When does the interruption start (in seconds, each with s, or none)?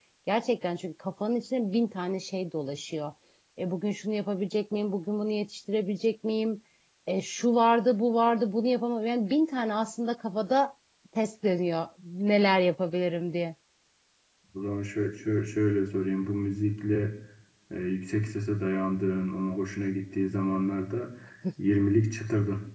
none